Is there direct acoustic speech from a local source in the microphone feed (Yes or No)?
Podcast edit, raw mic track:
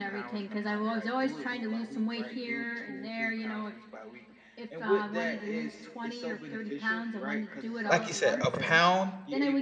Yes